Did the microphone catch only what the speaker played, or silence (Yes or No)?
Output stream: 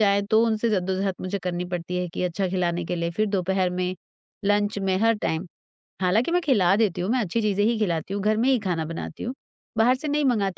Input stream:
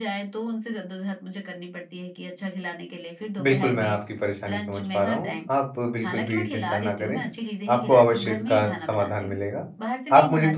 No